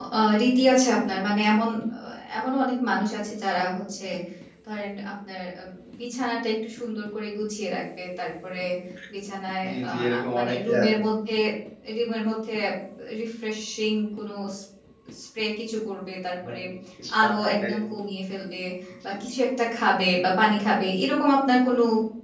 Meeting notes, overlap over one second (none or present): present